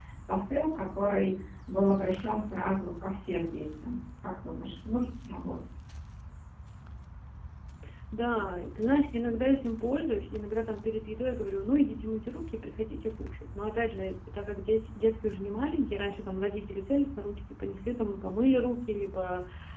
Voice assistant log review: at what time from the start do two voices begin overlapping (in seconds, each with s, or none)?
none